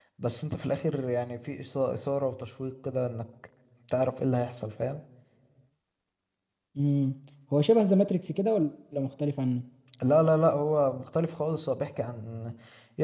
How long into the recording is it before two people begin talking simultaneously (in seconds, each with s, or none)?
none